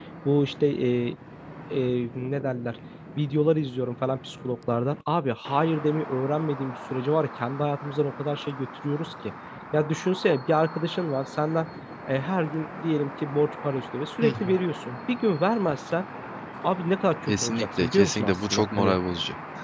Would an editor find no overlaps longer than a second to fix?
No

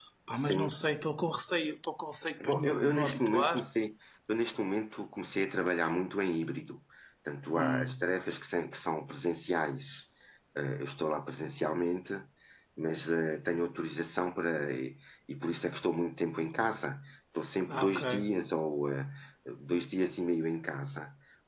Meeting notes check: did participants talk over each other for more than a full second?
Yes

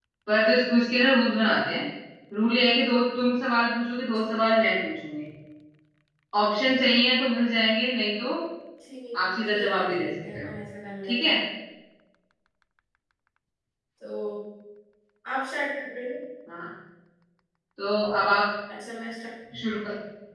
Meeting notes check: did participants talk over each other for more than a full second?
Yes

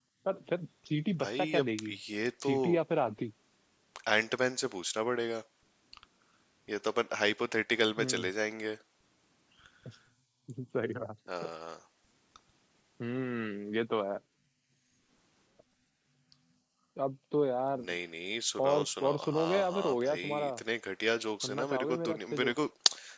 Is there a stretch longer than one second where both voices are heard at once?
Yes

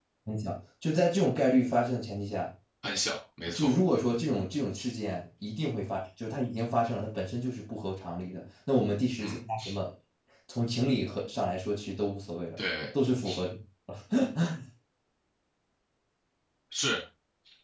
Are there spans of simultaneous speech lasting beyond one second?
No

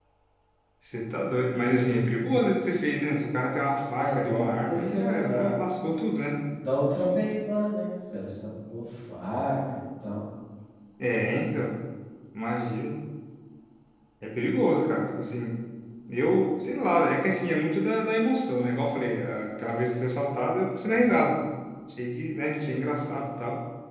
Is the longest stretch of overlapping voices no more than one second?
No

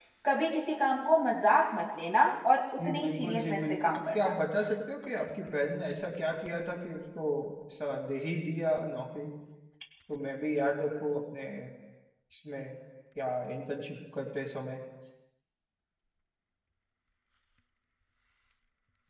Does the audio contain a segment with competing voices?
Yes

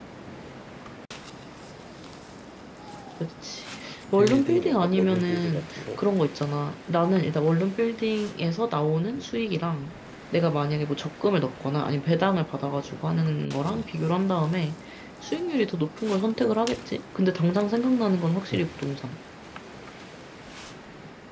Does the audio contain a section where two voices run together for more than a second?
Yes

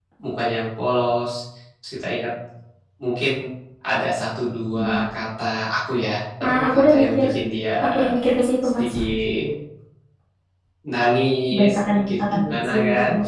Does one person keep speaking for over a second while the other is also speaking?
Yes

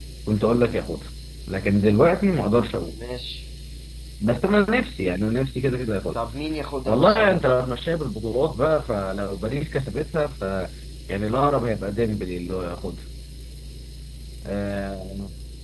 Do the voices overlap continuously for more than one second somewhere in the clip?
No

